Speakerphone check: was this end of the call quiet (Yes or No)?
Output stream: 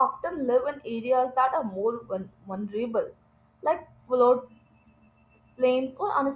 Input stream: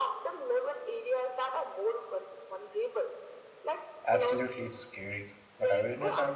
No